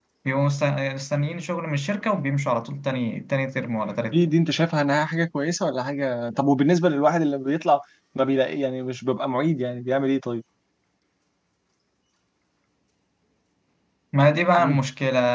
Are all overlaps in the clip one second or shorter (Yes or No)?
Yes